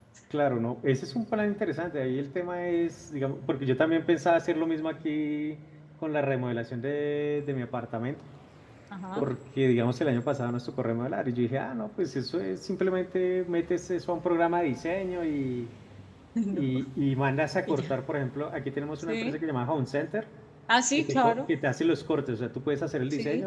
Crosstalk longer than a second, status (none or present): none